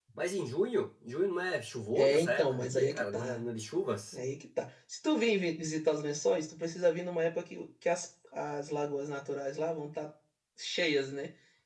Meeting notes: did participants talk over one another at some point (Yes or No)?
Yes